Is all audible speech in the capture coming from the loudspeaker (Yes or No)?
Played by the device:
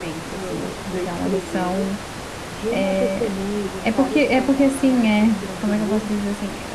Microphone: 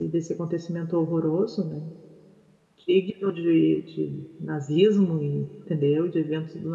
No